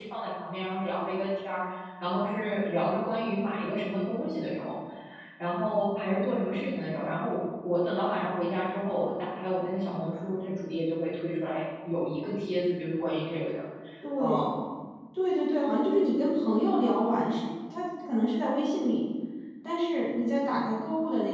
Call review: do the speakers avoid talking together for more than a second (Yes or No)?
Yes